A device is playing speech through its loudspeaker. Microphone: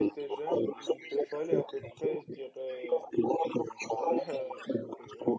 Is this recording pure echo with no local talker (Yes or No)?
No